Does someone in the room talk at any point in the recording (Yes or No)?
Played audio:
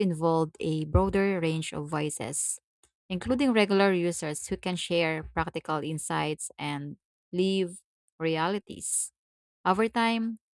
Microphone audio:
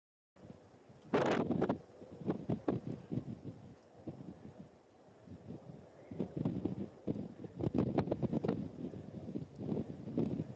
No